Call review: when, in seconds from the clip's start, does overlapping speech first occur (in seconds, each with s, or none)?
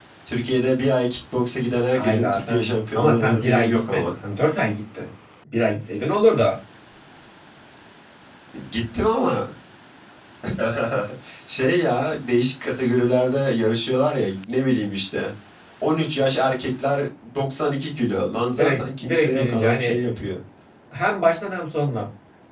1.9 s